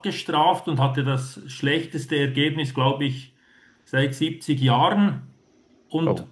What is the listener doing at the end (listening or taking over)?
listening